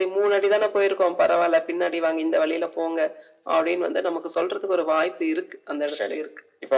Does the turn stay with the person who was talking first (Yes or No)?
No